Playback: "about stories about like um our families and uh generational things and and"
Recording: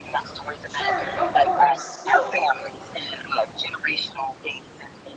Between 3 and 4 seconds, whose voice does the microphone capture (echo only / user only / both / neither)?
echo only